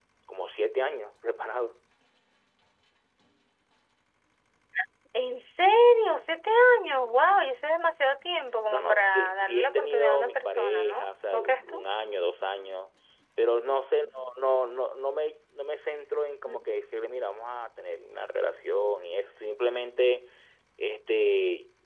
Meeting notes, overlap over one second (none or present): present